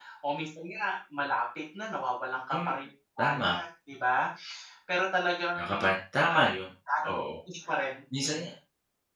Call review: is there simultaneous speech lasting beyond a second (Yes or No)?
No